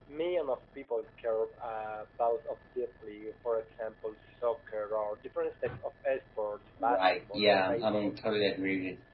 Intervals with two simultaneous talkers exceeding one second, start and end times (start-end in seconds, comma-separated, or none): 6.8-8.1